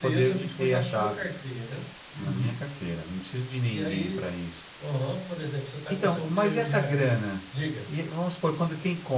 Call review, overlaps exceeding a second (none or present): present